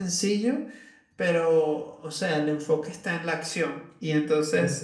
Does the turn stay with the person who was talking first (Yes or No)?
Yes